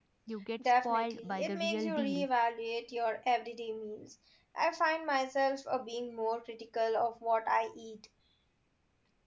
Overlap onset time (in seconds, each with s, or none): 0.8 s